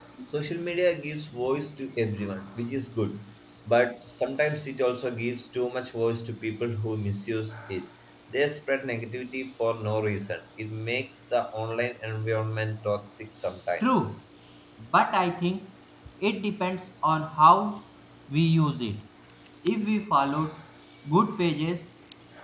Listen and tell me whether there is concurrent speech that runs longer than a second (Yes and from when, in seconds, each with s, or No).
No